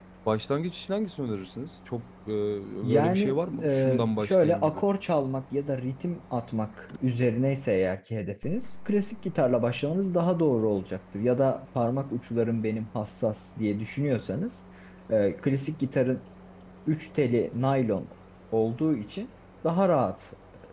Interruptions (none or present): present